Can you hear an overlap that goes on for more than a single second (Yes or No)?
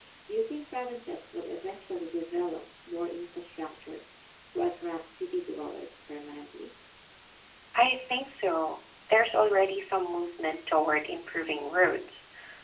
No